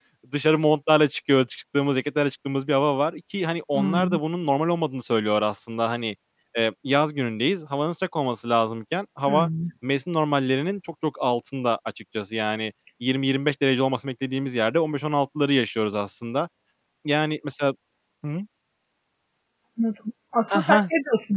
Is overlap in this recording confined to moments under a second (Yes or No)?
Yes